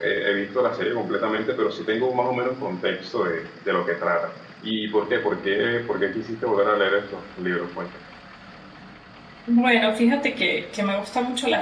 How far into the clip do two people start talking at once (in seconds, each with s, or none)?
none